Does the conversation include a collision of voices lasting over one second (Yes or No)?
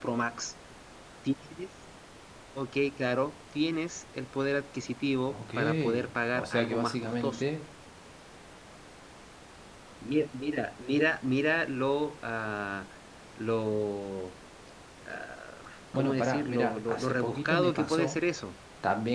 Yes